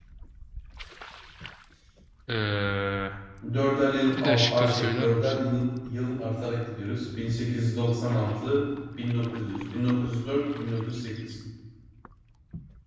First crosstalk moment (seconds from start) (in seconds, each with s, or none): 4.2 s